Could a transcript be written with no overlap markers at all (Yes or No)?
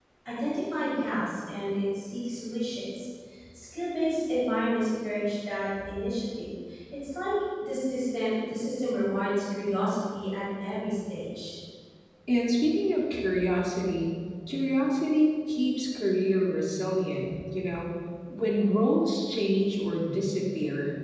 Yes